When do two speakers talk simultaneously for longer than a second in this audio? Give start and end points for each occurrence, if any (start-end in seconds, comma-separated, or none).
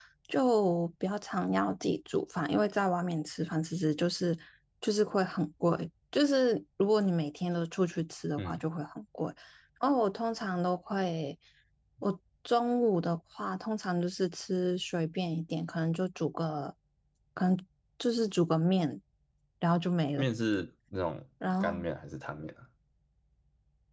none